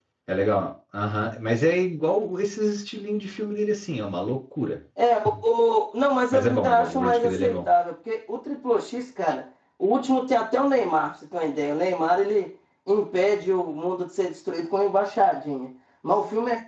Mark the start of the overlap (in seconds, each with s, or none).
6.3 s